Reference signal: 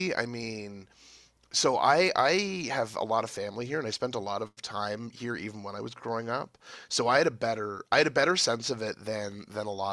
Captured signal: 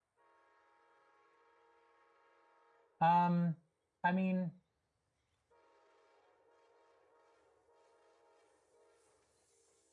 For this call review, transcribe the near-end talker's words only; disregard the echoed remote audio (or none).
Um, I mean,